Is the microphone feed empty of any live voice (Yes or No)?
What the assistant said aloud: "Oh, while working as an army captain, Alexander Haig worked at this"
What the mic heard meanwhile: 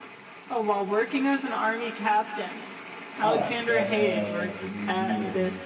No